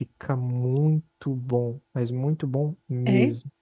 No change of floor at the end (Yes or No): Yes